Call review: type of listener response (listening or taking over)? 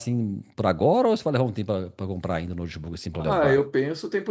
taking over